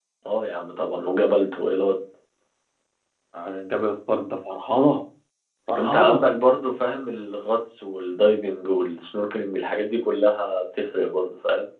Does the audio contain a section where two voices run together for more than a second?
No

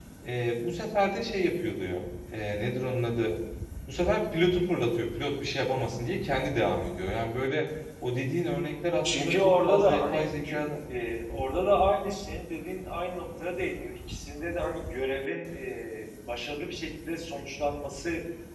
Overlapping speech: Yes, from 9.0 s

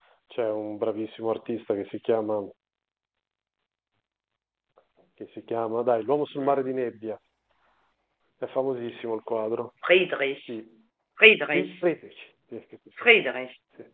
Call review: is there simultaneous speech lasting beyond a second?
No

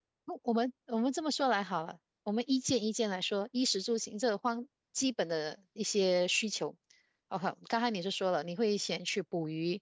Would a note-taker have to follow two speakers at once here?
No

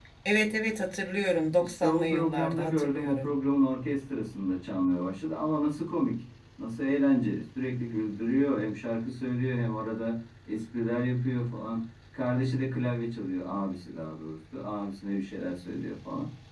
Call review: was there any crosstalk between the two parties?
Yes, from 1.6 s

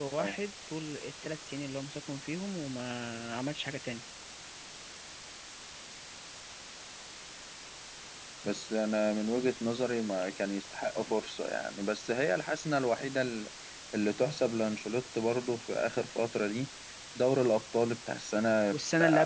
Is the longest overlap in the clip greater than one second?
No

